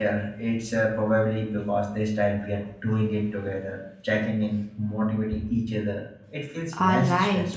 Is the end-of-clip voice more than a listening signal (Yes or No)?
Yes